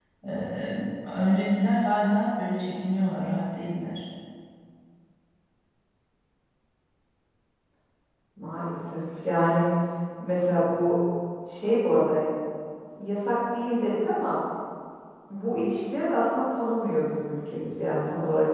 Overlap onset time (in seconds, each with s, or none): none